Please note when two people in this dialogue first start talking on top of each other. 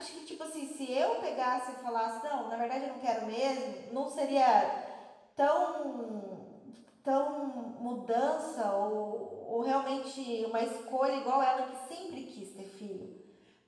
none

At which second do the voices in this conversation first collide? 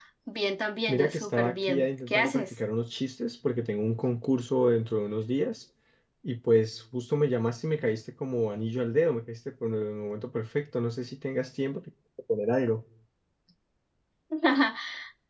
0.9 s

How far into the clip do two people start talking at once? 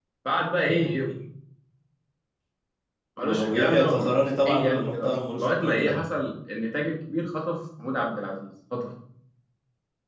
3.2 s

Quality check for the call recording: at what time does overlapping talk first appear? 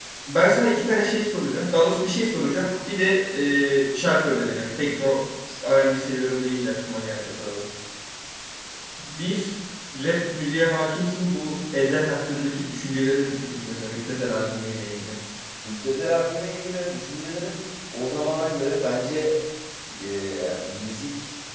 none

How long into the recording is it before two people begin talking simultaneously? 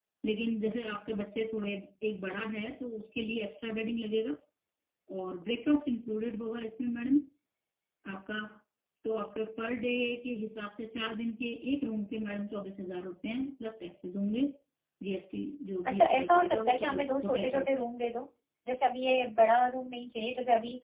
15.9 s

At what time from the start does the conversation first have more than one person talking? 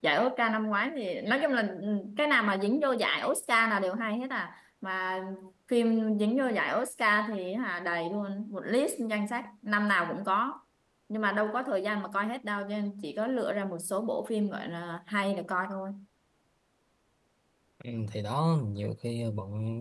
none

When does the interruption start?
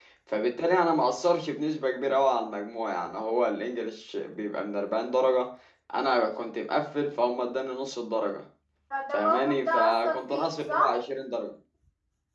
9.1 s

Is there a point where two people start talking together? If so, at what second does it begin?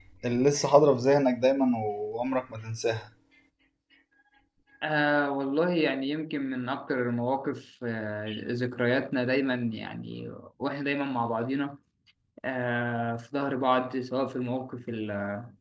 none

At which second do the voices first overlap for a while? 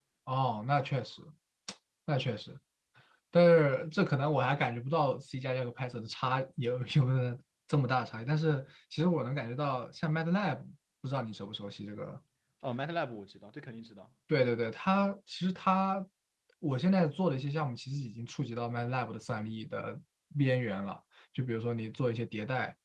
none

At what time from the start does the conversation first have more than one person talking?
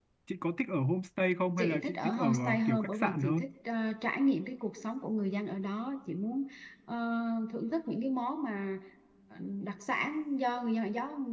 1.6 s

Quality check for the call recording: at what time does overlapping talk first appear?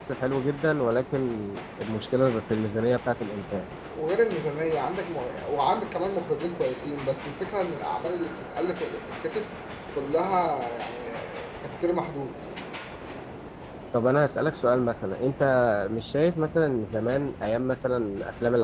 none

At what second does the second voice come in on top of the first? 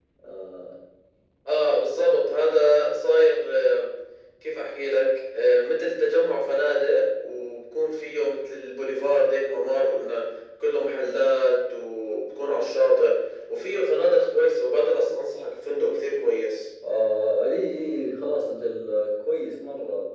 none

